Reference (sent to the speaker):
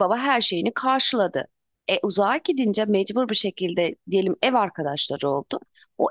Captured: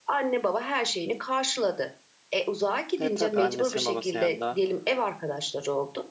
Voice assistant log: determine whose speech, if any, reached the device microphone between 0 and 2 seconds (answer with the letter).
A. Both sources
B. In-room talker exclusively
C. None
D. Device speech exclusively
D